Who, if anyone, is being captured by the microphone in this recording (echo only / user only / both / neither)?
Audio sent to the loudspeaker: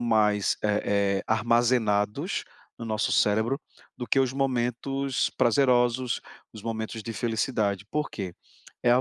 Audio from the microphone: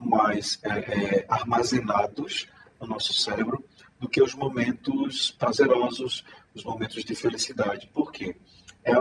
echo only